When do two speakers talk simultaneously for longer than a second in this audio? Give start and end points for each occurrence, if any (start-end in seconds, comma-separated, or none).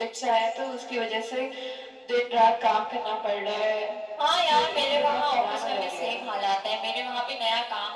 4.5-6.1